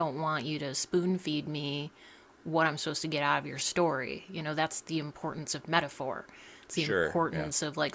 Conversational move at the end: listening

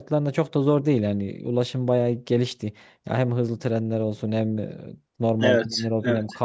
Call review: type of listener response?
listening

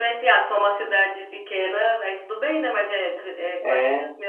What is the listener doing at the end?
listening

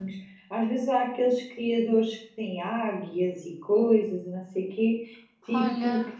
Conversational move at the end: listening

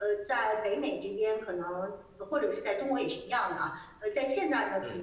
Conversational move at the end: listening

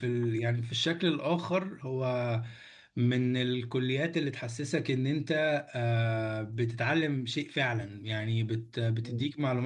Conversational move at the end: listening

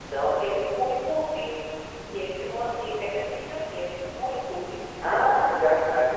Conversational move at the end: taking over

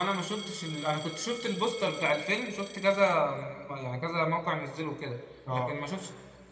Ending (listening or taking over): listening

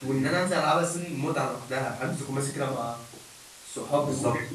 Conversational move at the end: taking over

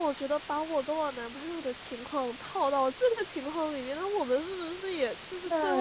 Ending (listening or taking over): taking over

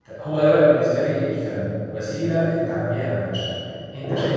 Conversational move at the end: listening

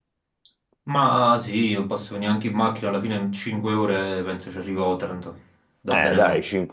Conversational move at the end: taking over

